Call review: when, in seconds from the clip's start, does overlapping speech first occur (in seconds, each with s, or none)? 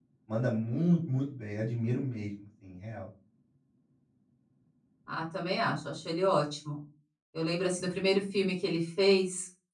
none